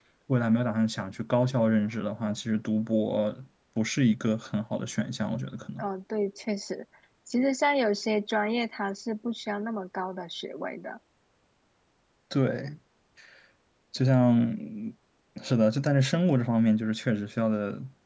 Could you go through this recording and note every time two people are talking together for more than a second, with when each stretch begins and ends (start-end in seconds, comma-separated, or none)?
none